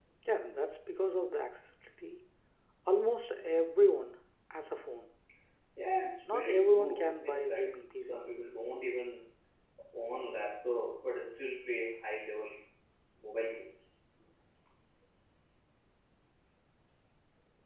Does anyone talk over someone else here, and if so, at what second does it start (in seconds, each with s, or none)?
6.3 s